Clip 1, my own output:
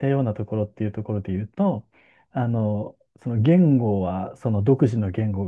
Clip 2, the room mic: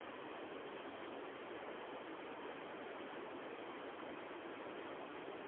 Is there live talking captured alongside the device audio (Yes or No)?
No